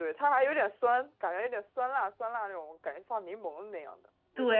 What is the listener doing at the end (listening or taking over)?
taking over